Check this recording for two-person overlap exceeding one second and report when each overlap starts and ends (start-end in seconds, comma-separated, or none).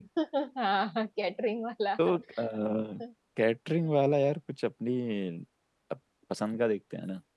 none